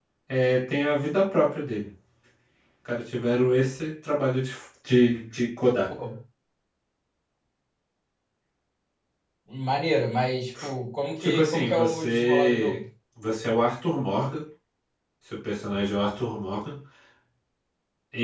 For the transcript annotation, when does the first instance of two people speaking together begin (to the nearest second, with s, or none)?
11 s